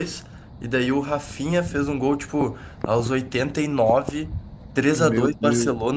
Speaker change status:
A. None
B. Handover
A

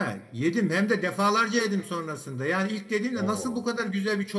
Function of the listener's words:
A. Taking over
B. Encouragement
B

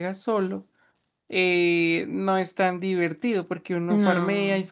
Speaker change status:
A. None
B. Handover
A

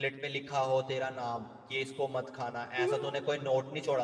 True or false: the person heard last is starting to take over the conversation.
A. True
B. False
B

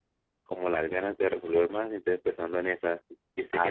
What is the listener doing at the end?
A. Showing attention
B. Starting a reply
B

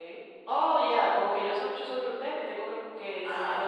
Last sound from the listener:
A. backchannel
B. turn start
B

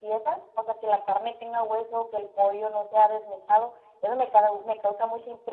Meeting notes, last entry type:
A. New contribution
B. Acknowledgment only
B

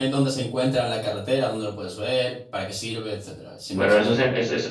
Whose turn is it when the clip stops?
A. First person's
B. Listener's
B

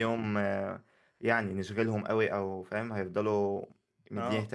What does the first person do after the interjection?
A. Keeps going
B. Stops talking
A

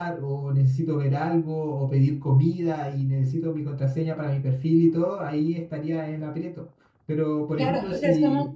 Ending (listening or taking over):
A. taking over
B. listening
A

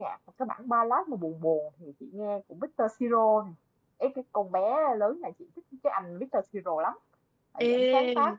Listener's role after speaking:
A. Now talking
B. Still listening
B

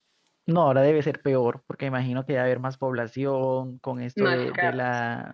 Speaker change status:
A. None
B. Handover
A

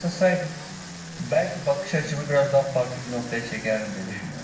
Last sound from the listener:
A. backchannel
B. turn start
B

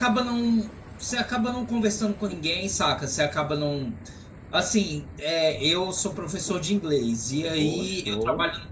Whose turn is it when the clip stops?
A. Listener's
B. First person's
B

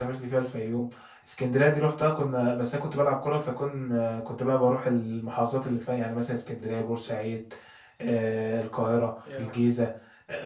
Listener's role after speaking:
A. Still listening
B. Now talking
A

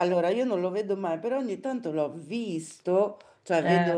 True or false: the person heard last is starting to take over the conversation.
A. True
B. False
B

